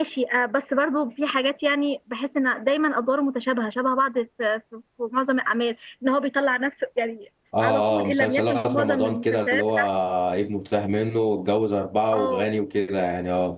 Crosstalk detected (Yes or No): Yes